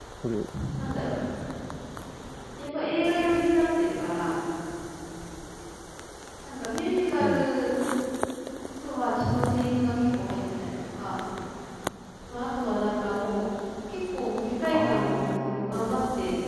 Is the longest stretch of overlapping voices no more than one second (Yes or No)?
No